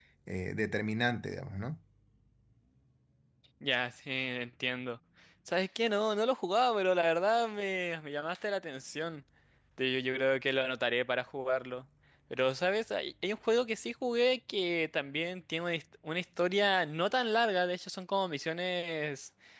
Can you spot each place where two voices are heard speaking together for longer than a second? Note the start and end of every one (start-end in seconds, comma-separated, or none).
none